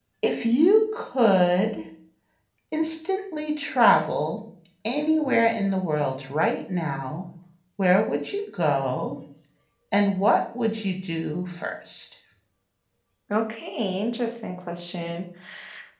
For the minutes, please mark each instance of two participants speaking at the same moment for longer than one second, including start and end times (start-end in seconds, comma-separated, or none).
none